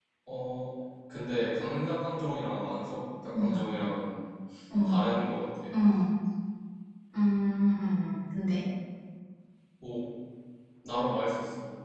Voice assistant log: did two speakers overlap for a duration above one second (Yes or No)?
No